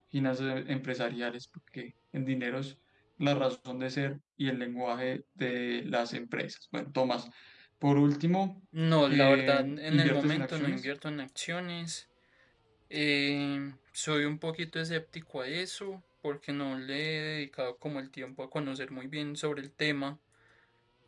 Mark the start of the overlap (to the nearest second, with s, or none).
9 s